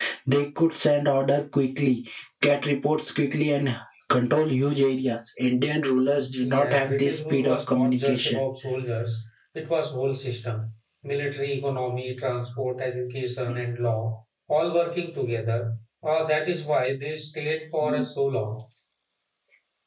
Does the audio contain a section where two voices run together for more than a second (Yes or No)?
Yes